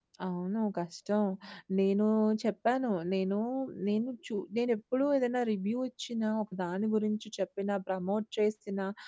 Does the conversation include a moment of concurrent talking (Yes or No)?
No